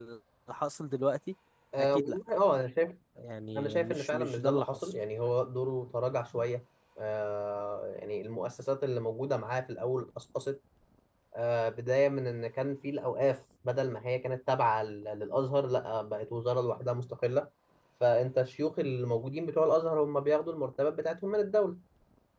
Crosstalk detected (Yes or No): Yes